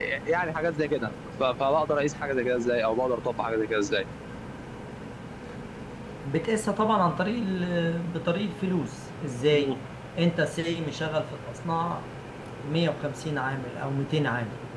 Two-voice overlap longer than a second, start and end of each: none

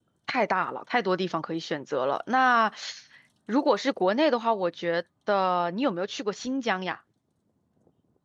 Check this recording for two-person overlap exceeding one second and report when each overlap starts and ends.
none

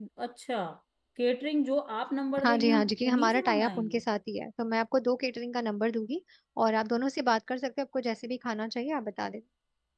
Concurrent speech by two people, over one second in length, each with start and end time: 2.4-4.0

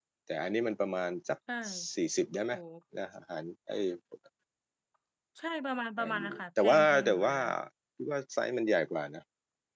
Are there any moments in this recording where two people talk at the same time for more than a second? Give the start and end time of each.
6.0-7.3

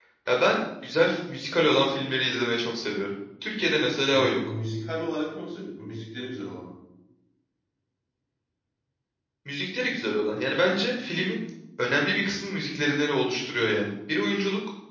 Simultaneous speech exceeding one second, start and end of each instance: none

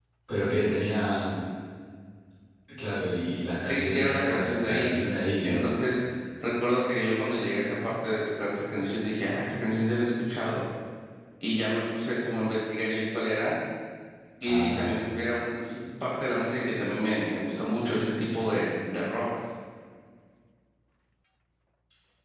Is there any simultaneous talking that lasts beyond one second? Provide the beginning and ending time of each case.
3.6-4.9

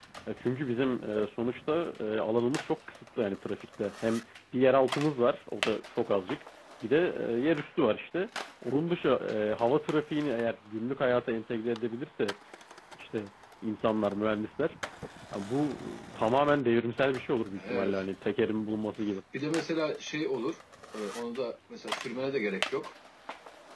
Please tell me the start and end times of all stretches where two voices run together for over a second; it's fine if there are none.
none

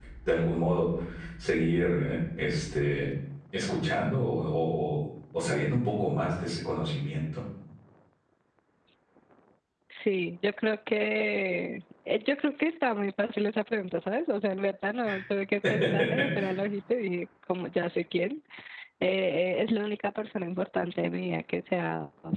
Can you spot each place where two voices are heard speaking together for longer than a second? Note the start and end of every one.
none

